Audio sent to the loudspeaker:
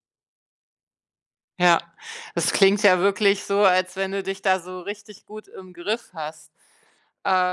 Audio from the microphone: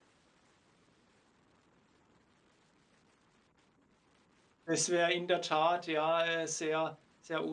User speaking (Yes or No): Yes